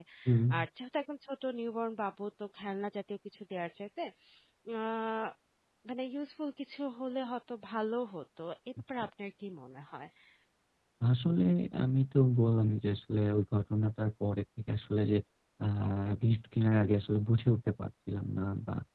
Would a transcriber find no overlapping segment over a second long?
Yes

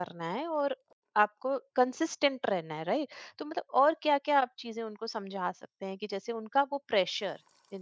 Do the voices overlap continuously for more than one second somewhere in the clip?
No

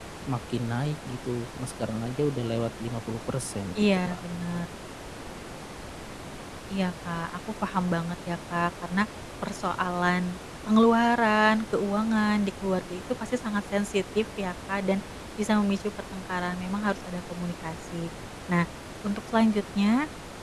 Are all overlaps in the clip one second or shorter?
Yes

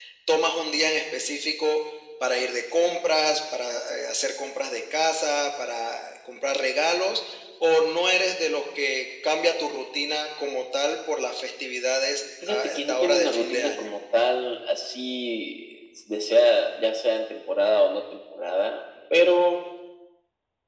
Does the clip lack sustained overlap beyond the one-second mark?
No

